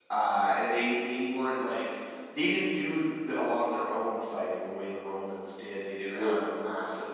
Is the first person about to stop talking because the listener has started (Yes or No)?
No